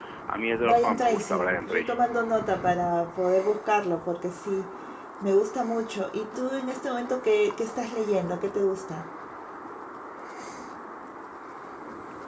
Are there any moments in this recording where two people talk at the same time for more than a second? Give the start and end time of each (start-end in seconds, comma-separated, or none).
0.6-2.0